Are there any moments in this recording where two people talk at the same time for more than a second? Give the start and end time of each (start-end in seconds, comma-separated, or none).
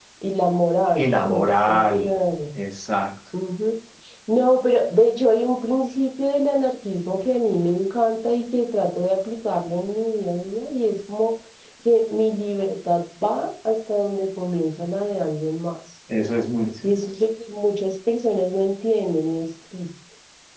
none